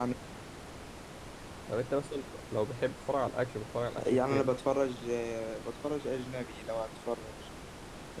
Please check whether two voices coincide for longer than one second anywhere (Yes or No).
No